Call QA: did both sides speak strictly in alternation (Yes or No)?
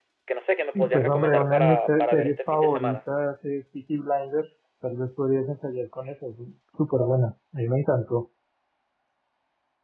No